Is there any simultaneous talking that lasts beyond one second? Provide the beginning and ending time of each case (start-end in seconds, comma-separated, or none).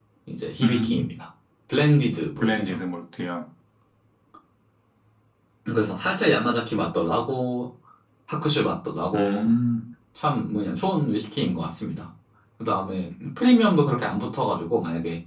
none